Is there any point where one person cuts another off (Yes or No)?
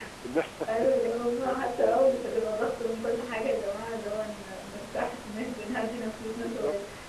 Yes